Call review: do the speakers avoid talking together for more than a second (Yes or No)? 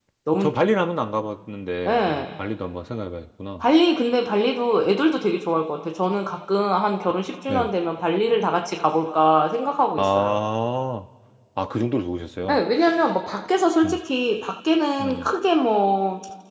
Yes